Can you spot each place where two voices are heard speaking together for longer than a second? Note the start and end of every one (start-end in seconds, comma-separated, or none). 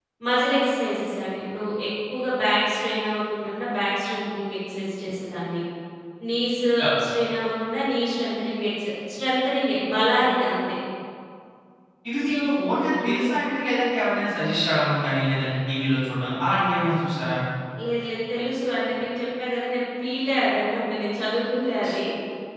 none